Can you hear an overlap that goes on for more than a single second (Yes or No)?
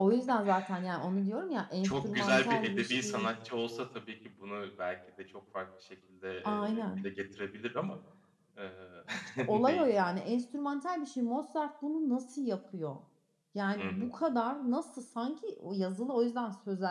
Yes